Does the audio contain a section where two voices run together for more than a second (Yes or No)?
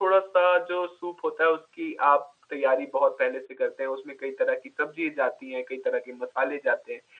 No